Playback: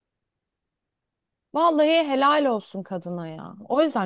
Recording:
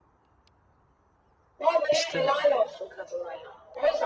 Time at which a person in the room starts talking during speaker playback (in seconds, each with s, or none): 1.9 s